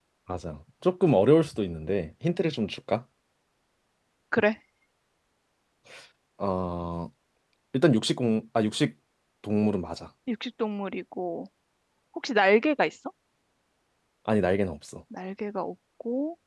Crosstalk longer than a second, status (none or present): none